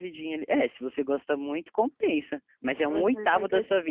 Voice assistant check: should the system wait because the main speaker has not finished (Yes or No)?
No